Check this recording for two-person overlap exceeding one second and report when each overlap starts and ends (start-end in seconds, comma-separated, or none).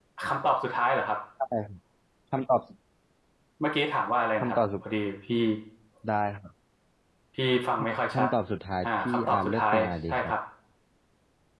8.8-10.3